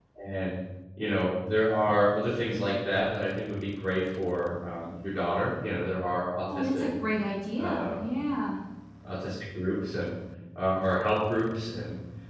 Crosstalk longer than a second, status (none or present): none